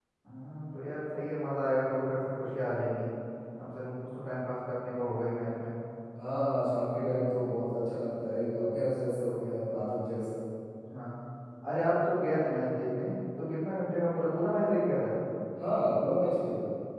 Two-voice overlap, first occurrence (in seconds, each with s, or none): none